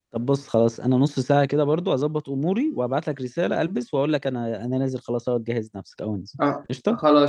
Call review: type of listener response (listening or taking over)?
taking over